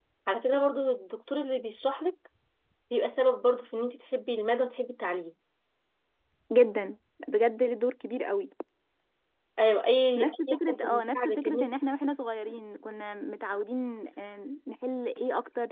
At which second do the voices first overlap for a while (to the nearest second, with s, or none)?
10 s